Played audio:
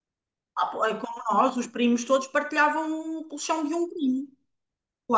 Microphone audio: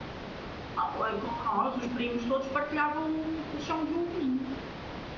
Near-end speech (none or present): none